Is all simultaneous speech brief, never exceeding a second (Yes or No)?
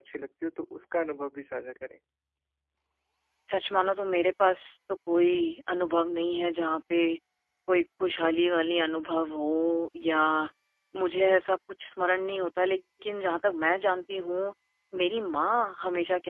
Yes